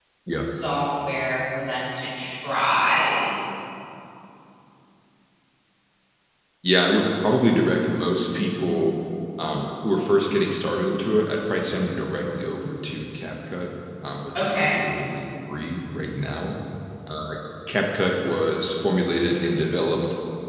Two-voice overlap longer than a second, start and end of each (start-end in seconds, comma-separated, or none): none